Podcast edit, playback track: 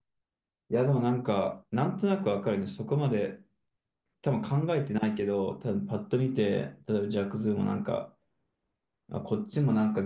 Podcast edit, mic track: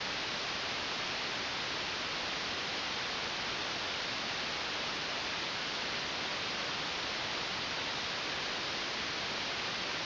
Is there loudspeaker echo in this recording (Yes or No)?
No